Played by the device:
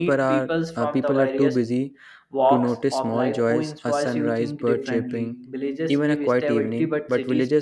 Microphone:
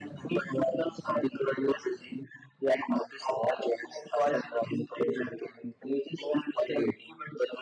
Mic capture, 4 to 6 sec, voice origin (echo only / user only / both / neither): echo only